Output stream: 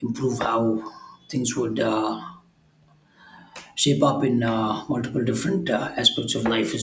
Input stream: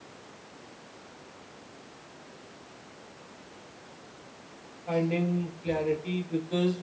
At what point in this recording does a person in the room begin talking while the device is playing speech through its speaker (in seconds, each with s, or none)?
4.8 s